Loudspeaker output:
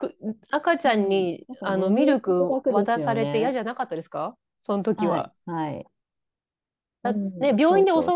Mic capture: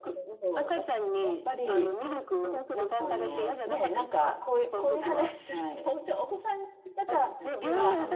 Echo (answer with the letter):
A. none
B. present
B